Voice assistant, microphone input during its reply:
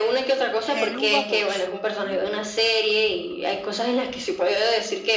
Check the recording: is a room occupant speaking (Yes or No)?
Yes